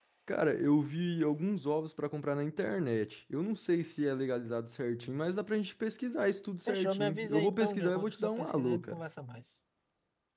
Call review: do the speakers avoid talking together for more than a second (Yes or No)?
No